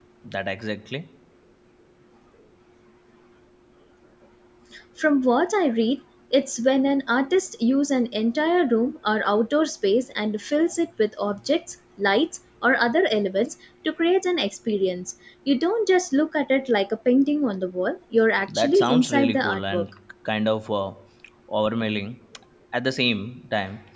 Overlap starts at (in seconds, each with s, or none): 18.5 s